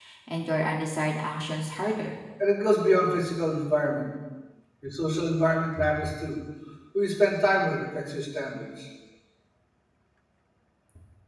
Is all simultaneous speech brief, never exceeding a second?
Yes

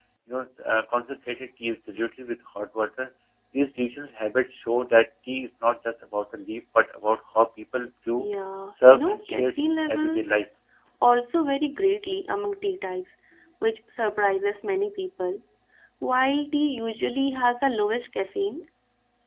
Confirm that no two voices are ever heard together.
No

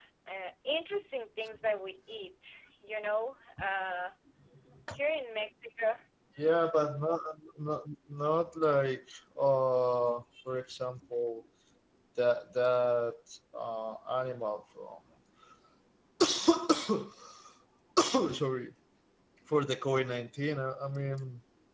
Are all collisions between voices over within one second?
Yes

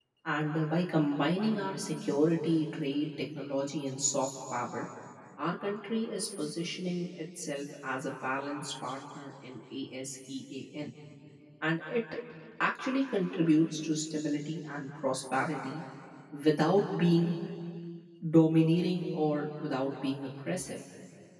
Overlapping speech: No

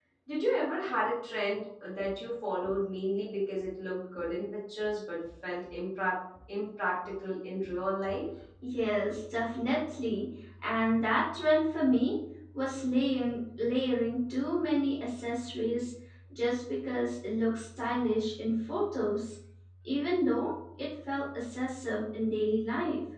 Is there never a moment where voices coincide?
Yes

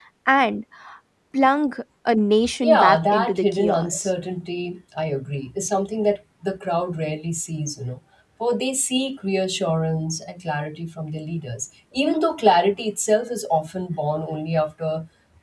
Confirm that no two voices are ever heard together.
No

